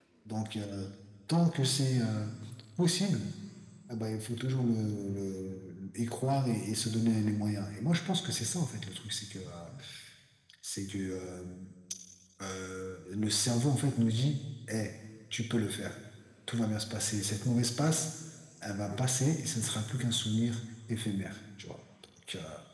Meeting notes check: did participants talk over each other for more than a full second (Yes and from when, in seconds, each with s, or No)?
No